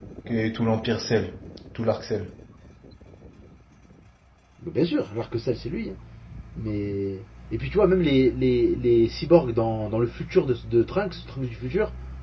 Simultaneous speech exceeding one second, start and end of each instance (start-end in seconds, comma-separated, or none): none